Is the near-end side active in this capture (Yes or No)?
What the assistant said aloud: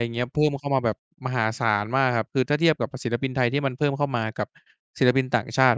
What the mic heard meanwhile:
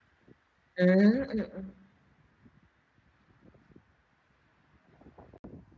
Yes